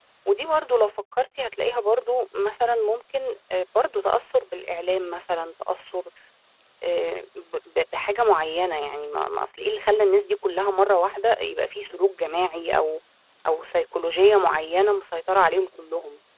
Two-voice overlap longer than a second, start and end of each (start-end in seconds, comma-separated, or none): none